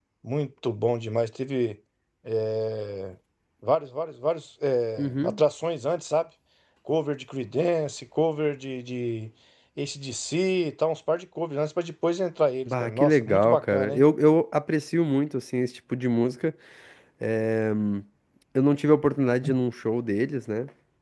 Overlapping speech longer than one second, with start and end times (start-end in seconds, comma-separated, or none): 12.7-14.0